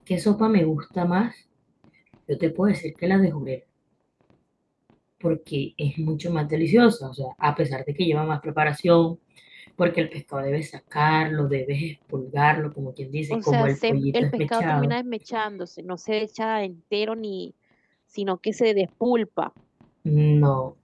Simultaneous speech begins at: 13.3 s

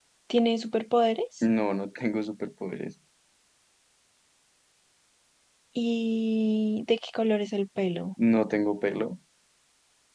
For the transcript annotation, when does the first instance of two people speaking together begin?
none

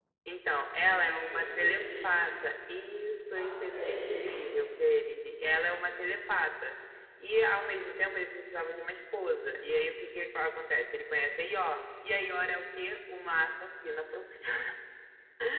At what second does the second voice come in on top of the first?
0.7 s

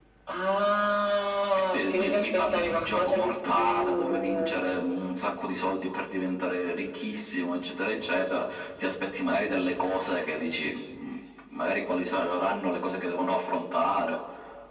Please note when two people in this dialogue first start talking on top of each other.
1.6 s

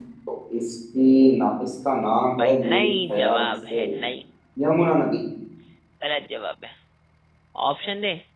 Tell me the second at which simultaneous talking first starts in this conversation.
2.4 s

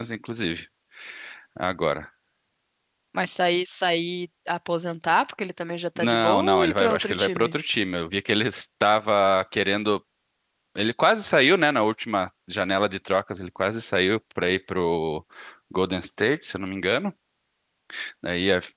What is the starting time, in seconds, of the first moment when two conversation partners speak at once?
6.0 s

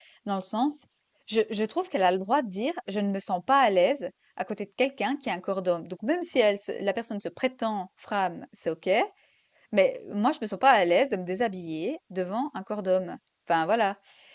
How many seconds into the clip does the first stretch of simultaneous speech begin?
none

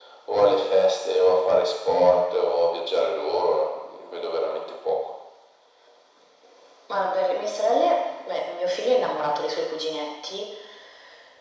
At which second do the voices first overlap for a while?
none

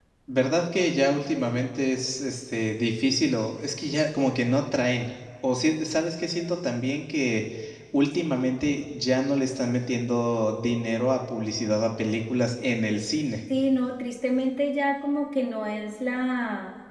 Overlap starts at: none

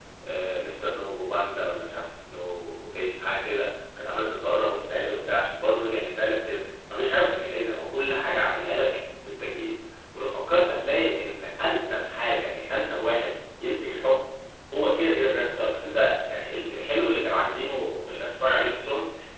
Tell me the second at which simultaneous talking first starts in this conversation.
none

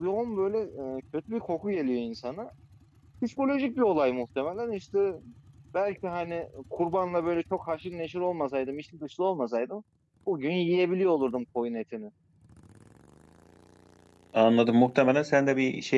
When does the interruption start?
none

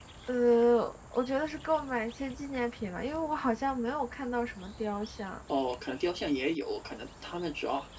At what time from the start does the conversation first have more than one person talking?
none

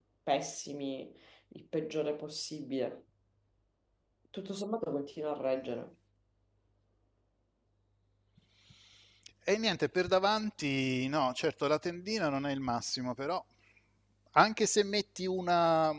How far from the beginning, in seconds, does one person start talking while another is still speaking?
none

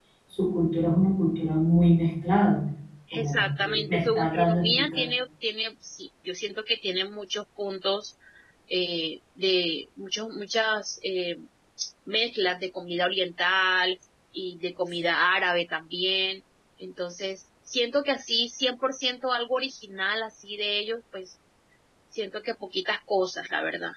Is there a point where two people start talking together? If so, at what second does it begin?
3.1 s

